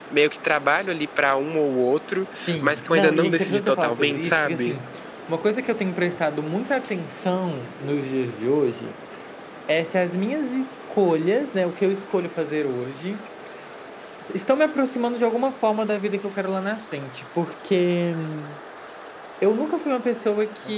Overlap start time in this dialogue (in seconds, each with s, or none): 2.5 s